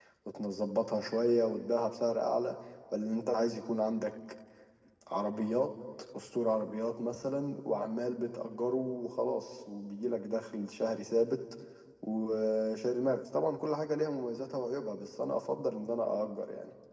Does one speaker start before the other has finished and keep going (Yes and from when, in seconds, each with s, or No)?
No